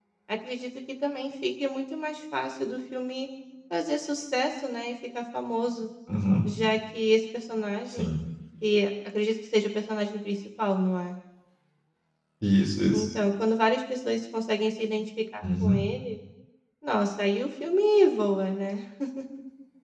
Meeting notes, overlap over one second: none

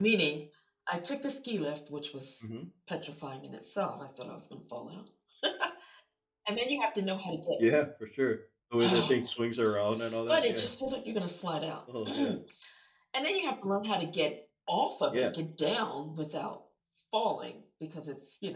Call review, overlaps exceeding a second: none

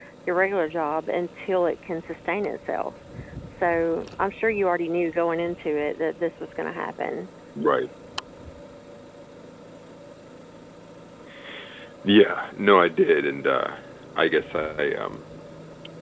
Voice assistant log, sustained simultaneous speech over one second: none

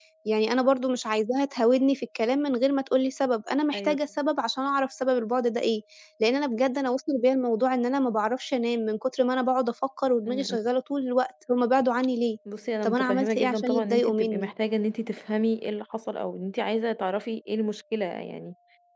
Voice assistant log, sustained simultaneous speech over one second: present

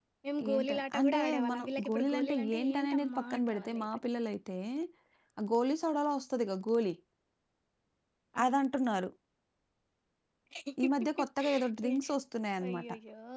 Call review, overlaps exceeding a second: present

